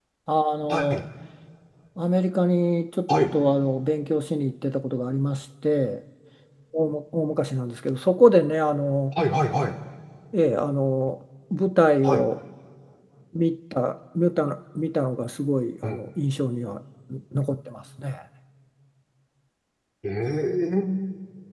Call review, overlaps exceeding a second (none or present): none